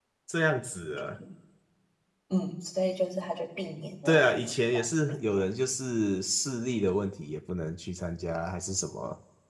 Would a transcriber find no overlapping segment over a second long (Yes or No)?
No